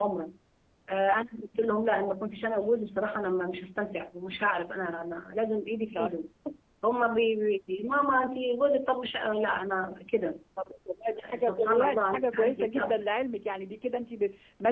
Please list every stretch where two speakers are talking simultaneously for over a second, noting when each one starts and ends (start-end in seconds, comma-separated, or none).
11.4-13.0